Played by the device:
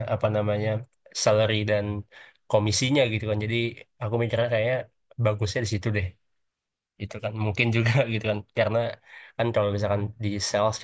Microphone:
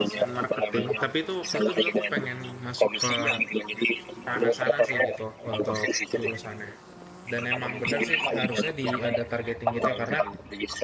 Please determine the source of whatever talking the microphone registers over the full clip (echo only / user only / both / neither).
both